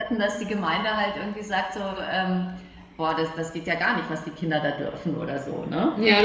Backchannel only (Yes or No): No